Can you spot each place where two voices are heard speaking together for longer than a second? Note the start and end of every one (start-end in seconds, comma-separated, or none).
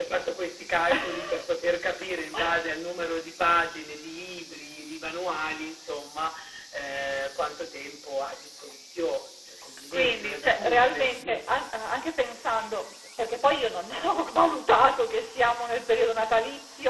9.9-11.4